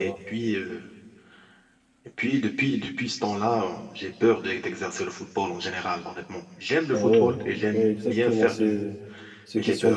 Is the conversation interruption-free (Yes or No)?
No